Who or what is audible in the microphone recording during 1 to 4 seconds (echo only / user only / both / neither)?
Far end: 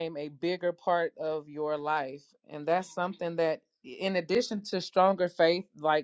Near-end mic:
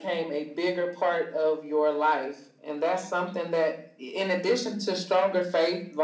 echo only